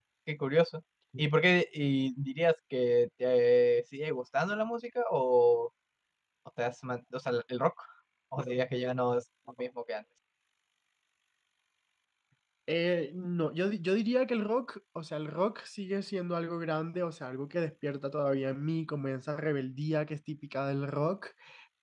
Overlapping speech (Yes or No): No